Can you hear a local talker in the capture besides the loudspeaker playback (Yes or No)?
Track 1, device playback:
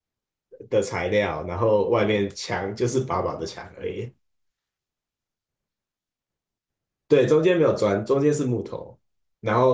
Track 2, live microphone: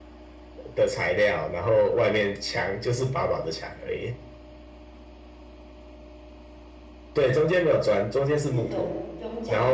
Yes